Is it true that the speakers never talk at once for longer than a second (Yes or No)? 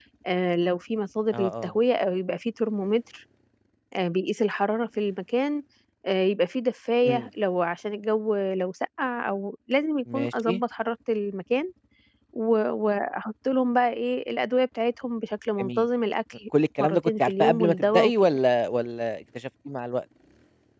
No